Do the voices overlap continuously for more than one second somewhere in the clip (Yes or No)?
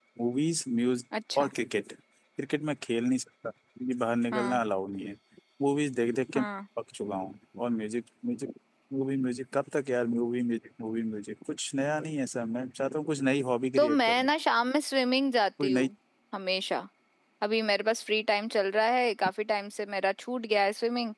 No